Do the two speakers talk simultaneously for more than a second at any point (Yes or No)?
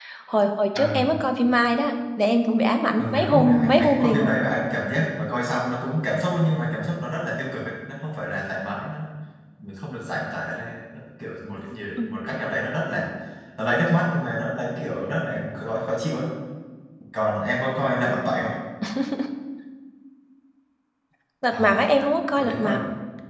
Yes